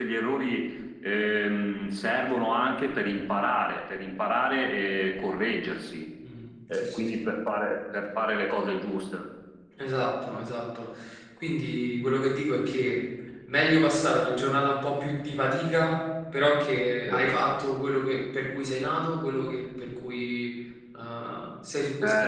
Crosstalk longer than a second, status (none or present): none